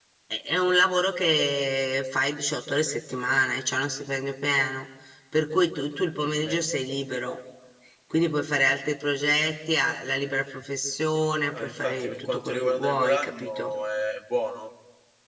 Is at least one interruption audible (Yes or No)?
Yes